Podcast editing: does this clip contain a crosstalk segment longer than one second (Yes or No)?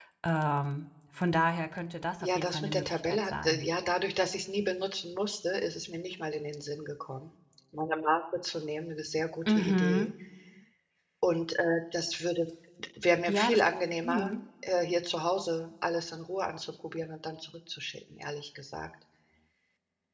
Yes